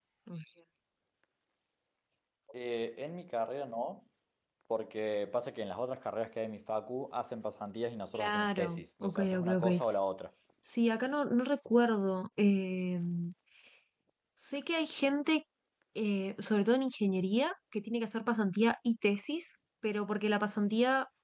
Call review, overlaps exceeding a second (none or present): present